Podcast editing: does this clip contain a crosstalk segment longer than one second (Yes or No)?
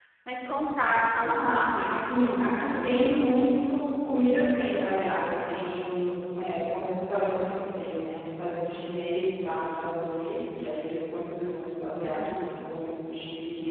Yes